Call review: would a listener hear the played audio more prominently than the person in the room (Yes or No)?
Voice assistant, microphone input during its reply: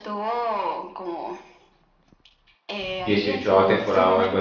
No